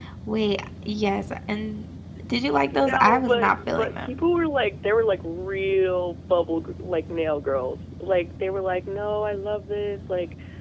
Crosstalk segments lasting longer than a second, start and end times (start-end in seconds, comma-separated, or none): 2.7-4.2